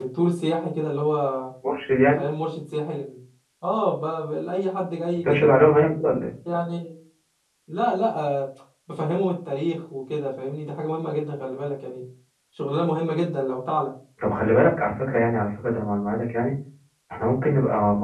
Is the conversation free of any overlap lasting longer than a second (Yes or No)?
Yes